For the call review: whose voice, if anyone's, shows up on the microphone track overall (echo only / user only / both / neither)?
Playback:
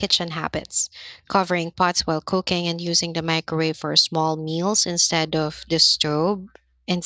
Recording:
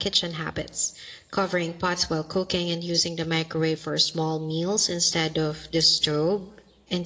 echo only